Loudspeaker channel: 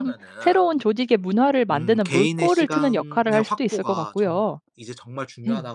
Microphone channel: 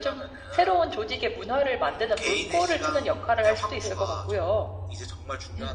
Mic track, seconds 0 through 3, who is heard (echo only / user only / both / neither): echo only